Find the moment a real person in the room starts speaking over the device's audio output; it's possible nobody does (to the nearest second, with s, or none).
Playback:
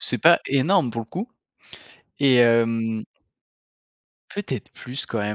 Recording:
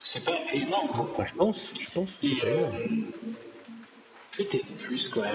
1 s